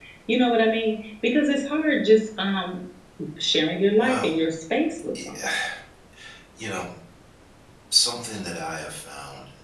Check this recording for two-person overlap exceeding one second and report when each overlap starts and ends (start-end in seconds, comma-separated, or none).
none